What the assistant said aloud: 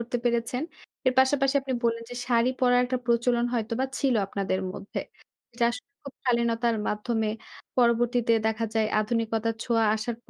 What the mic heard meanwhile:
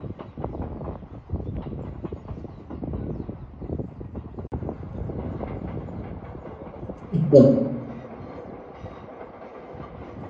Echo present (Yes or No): No